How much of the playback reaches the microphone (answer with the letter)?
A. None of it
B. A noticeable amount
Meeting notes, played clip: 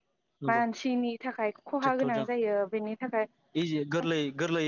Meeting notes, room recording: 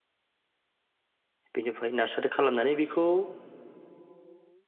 A